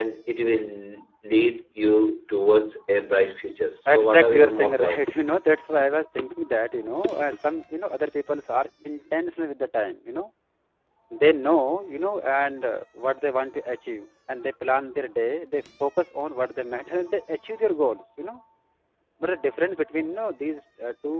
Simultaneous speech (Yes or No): Yes